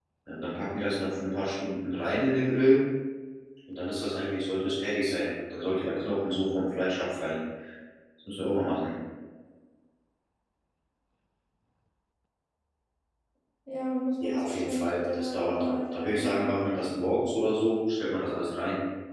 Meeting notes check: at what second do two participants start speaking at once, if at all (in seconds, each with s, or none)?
14.2 s